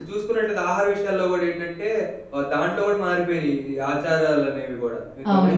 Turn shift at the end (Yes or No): Yes